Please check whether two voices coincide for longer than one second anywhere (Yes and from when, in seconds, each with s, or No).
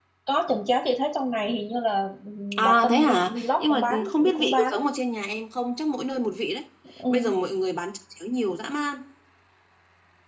Yes, from 2.6 s